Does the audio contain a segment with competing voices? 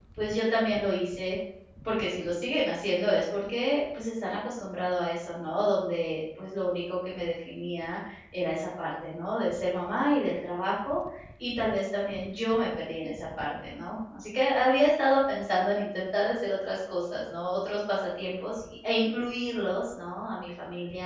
No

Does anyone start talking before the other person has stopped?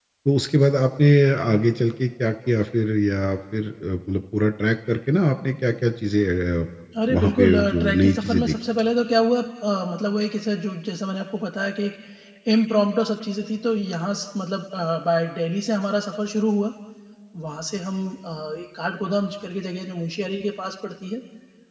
Yes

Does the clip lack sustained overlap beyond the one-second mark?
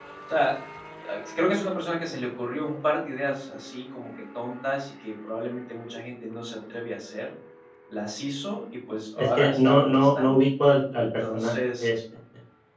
No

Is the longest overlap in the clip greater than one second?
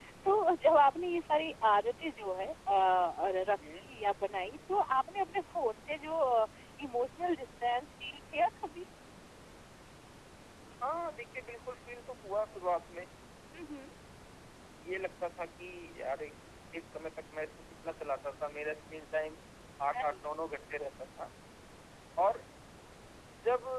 No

